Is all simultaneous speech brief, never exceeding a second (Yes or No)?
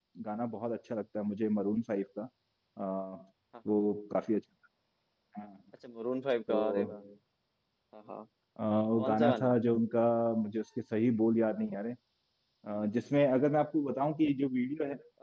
Yes